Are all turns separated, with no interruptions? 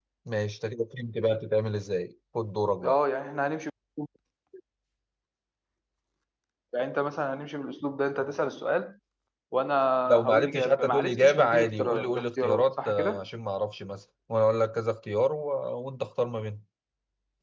No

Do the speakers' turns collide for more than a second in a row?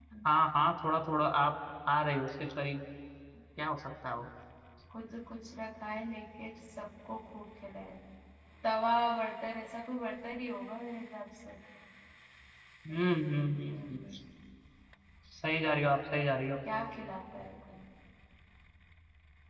No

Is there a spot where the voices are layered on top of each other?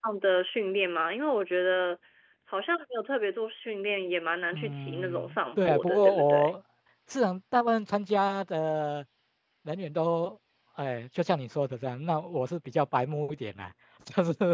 Yes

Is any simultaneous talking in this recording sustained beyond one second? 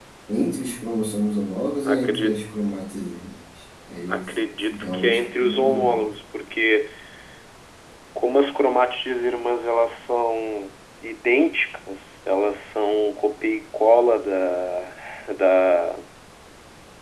Yes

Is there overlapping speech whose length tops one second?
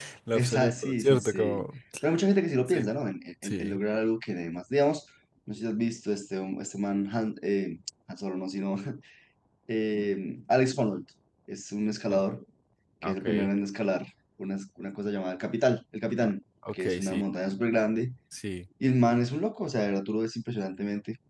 Yes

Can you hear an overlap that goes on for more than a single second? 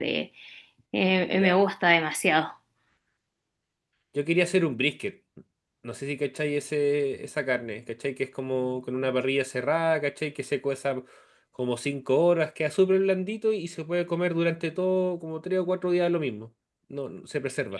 No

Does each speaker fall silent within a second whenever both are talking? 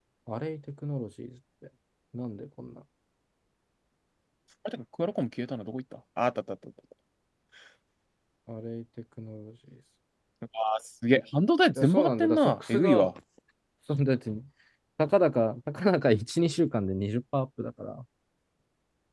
No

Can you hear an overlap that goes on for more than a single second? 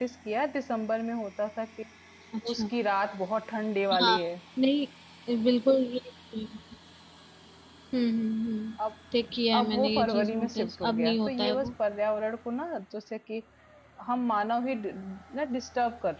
Yes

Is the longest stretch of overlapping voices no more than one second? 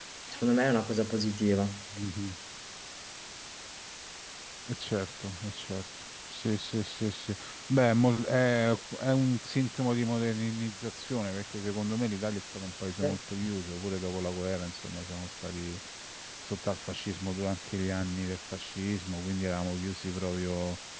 Yes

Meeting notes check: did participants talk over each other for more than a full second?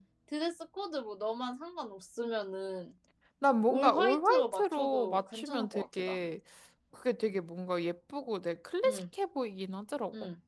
Yes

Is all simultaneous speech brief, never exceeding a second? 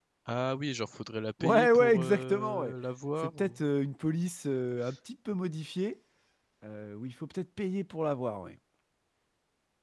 No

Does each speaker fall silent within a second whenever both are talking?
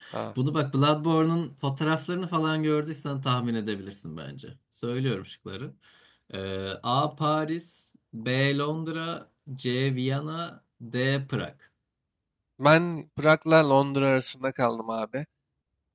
Yes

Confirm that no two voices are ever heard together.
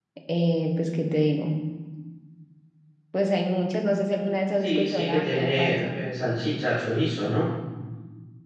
No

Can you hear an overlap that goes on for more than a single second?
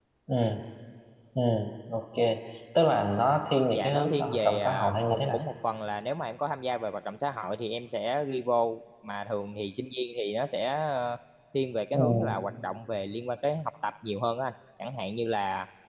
Yes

